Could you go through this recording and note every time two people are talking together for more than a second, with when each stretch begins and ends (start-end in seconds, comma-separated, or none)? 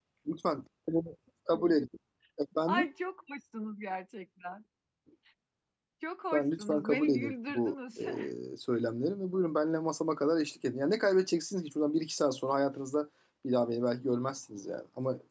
6.3-7.7